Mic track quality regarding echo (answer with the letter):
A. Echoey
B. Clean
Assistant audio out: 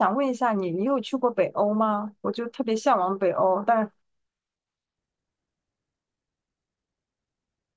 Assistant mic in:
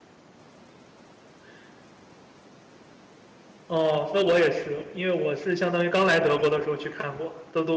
B